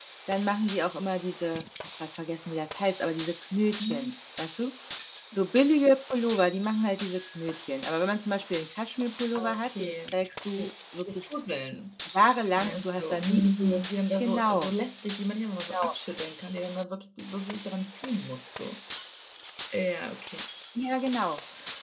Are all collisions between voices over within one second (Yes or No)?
No